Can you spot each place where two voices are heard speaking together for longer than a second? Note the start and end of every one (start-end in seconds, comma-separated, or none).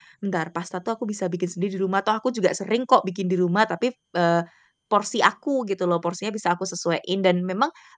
none